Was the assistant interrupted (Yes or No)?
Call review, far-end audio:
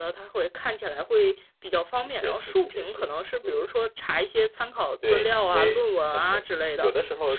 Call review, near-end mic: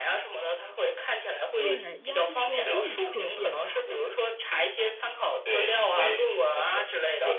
Yes